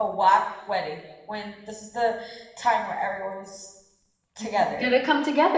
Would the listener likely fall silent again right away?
No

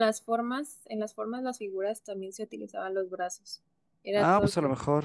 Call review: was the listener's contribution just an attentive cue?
No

